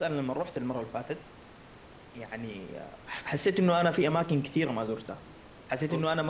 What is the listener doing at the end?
listening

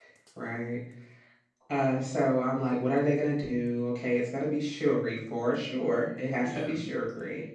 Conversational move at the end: listening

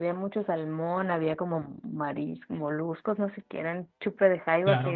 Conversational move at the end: listening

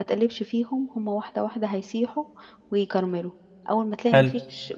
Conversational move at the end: listening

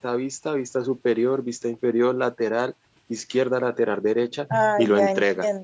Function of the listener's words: taking over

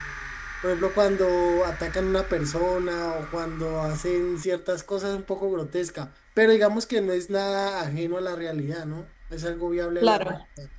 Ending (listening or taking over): taking over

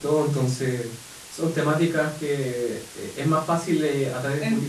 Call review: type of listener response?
taking over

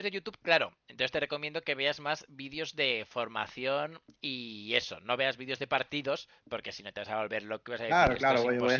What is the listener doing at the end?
taking over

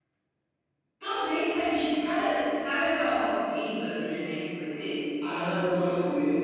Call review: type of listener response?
taking over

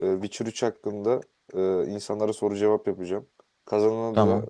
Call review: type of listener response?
listening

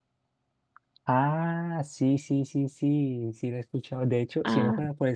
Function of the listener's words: listening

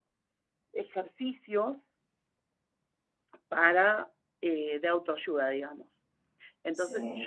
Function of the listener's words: listening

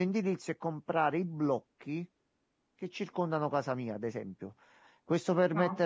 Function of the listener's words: listening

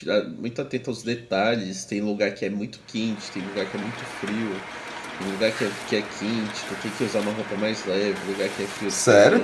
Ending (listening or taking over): taking over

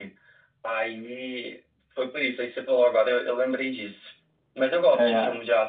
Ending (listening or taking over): listening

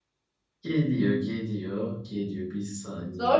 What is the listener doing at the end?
taking over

